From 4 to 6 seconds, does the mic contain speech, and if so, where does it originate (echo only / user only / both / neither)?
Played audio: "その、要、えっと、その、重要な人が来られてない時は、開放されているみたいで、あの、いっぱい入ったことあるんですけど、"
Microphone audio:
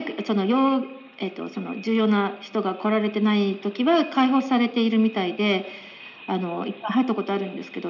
echo only